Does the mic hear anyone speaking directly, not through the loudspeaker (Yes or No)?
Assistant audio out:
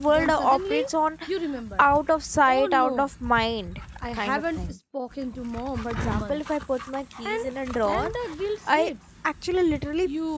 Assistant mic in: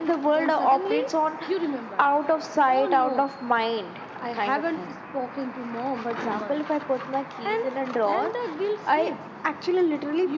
No